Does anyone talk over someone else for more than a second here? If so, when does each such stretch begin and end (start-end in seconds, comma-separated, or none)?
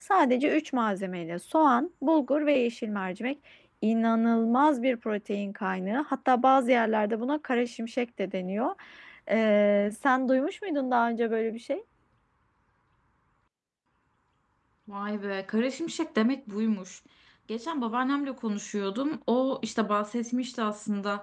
none